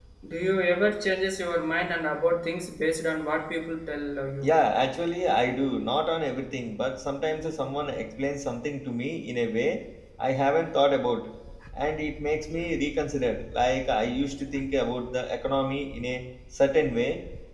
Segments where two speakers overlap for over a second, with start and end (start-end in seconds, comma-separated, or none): none